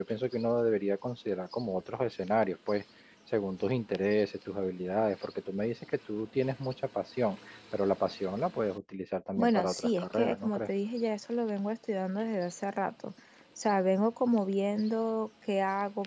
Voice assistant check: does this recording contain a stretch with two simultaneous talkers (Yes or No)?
Yes